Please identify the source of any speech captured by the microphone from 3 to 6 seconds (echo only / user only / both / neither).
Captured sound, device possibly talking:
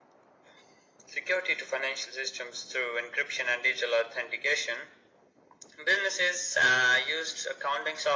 echo only